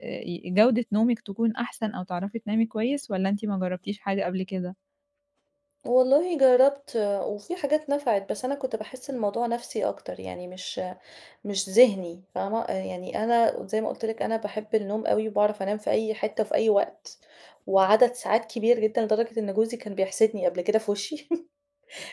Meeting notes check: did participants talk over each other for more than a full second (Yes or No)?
No